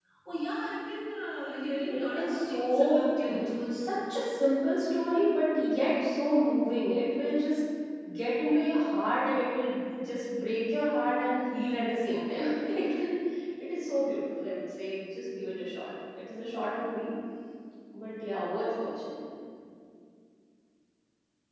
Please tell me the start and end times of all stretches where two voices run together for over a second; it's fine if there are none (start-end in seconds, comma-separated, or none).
1.9-3.4